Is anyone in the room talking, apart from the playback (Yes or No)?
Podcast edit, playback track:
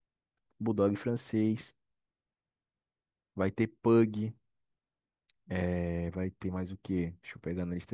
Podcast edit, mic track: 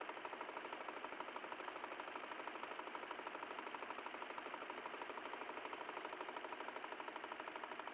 No